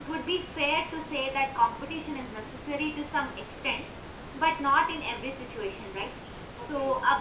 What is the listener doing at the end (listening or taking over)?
listening